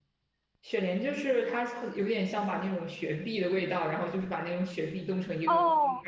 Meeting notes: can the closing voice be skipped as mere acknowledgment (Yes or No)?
No